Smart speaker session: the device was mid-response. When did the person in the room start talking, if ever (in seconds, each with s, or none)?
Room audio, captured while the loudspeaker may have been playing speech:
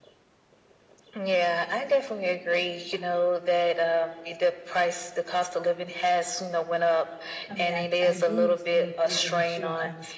7.5 s